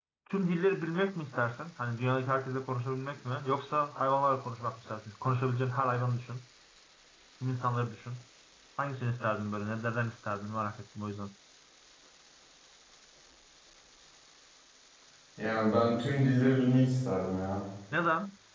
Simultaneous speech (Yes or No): No